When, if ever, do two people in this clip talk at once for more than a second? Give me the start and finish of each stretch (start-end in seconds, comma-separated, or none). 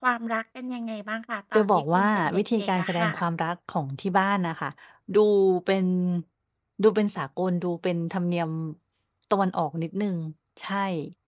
1.5-3.2